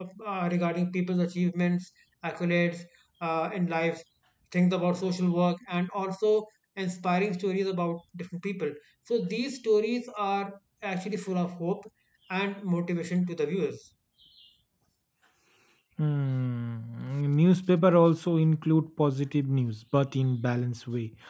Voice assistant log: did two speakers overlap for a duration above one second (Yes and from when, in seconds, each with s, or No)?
No